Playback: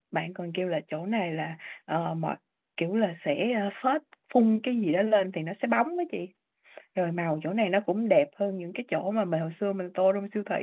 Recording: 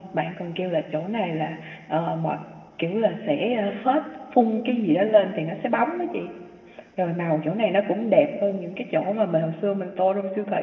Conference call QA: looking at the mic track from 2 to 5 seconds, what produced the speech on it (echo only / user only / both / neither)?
echo only